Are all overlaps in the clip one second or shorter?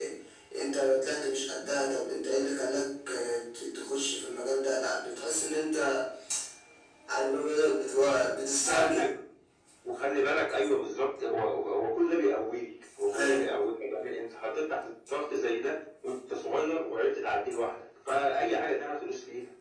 Yes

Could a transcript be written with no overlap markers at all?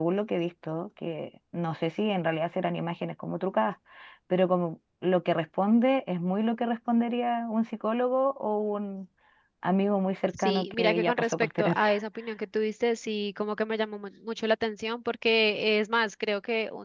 No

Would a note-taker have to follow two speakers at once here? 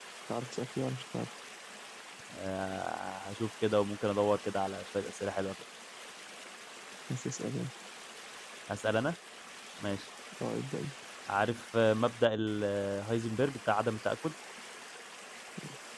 No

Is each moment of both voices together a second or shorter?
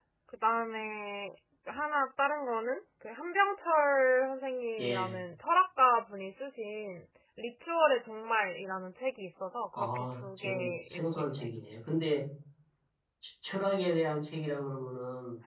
No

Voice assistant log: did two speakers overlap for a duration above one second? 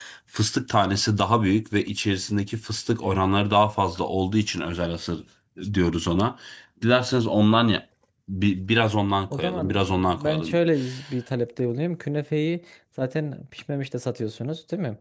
Yes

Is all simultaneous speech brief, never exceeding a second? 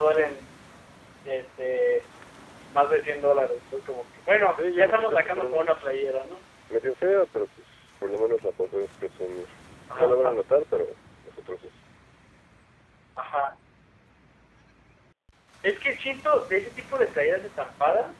No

